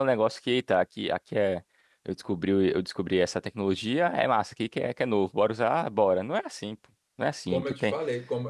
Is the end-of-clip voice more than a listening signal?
Yes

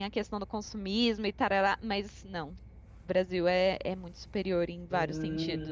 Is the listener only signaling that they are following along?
No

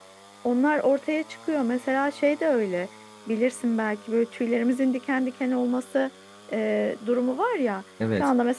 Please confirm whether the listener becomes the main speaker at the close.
No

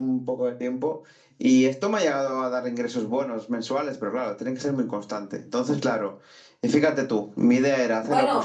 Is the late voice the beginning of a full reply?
Yes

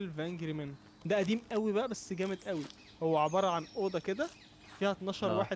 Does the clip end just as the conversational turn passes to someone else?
No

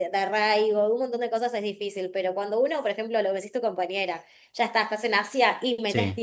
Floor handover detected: No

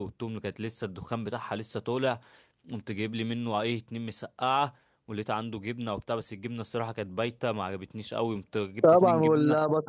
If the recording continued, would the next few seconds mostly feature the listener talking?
Yes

